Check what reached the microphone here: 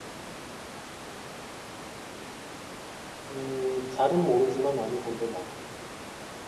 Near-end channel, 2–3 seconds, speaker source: neither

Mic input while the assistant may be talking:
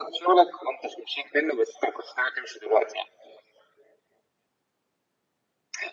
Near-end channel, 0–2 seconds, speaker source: echo only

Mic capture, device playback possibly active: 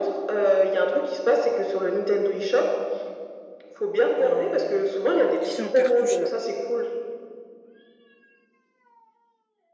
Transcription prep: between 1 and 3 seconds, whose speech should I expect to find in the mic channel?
echo only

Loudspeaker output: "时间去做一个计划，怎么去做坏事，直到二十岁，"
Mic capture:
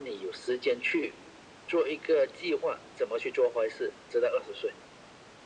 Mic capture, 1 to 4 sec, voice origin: echo only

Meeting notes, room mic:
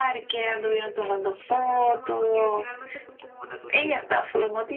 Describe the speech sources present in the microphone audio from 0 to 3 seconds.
both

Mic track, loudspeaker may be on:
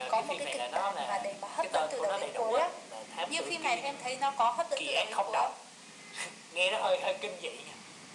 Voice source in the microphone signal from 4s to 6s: echo only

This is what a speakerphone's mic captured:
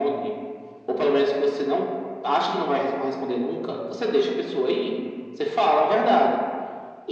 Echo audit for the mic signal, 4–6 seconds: echo only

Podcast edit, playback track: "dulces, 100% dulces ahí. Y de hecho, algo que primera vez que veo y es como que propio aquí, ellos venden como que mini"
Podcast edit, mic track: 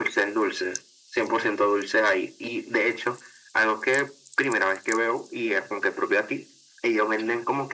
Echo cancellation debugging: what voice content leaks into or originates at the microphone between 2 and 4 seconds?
echo only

